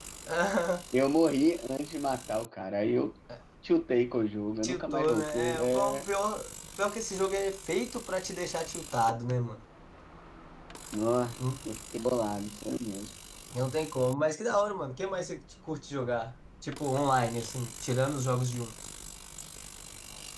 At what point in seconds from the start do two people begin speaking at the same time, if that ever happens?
4.6 s

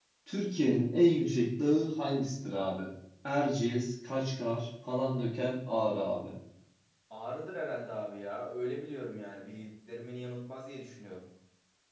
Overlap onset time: none

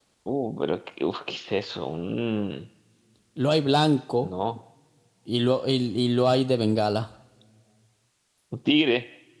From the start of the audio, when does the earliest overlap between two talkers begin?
none

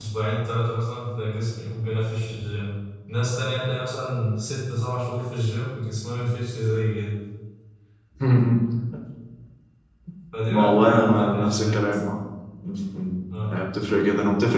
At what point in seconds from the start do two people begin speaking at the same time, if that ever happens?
10.5 s

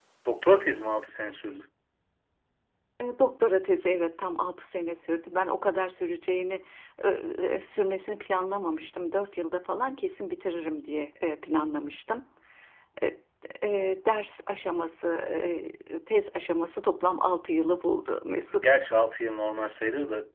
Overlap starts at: none

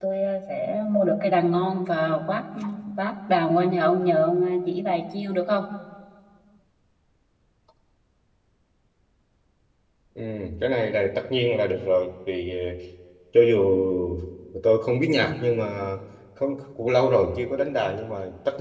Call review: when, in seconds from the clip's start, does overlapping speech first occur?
none

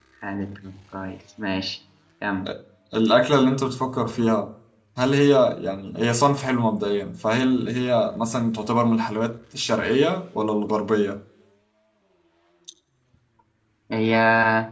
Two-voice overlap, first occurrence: none

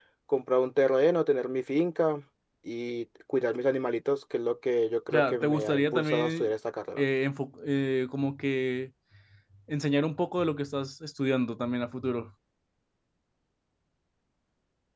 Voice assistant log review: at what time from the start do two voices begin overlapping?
5.1 s

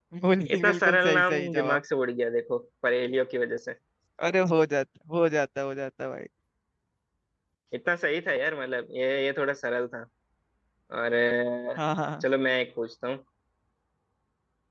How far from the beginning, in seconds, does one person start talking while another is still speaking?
0.6 s

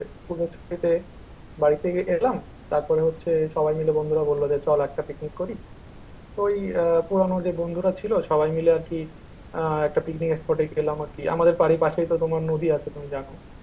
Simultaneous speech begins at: none

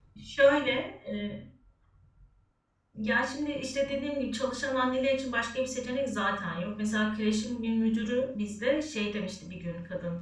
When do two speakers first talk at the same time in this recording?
none

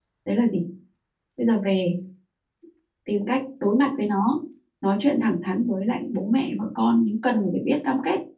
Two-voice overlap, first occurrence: none

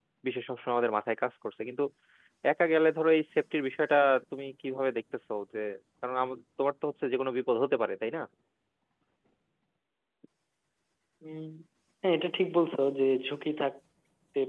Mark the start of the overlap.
none

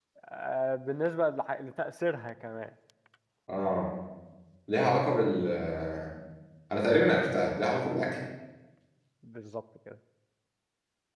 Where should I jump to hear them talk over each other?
none

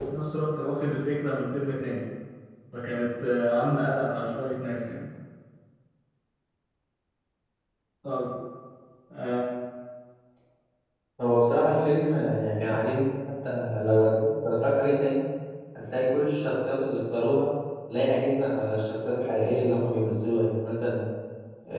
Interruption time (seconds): none

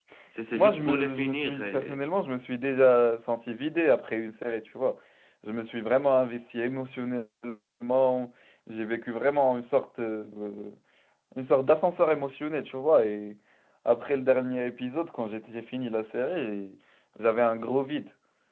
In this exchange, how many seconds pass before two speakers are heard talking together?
0.5 s

